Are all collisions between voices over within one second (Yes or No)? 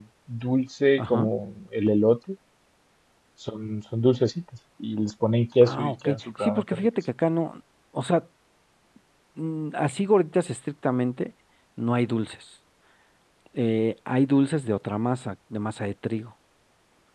No